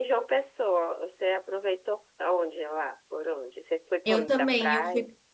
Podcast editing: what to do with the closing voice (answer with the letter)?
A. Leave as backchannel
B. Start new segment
B